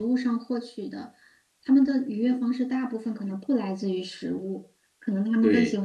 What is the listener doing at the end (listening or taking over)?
listening